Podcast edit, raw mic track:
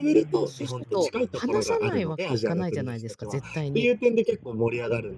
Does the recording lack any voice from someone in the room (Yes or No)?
No